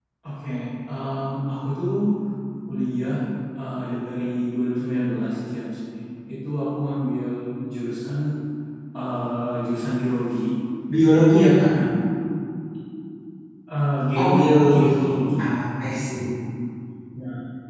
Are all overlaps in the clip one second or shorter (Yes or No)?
No